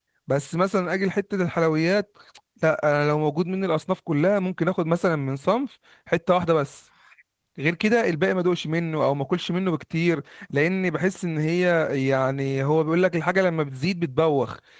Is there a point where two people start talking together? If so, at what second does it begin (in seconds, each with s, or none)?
none